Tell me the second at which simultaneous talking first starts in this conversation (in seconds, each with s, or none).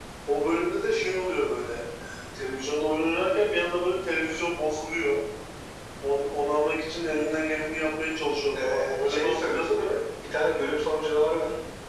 8.5 s